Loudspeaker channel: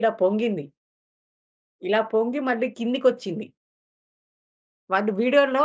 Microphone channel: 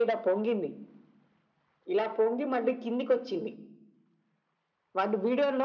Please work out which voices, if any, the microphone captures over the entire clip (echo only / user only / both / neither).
echo only